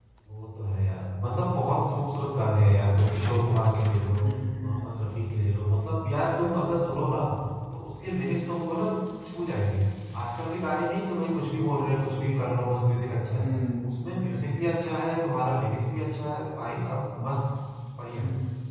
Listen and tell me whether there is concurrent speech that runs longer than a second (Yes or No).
No